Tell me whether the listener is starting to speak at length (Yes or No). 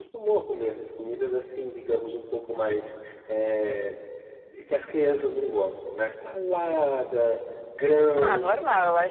Yes